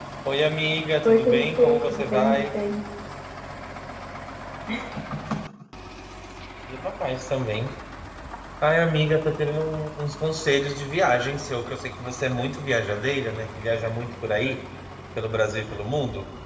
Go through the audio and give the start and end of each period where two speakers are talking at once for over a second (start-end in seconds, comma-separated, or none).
1.1-2.4